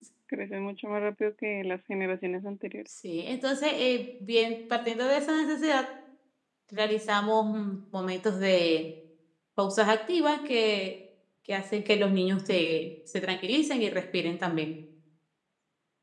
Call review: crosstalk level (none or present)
none